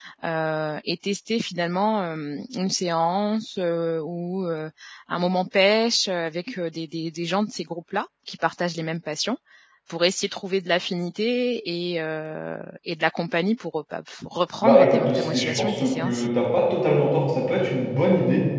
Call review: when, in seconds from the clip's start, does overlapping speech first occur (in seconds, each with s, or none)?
14.6 s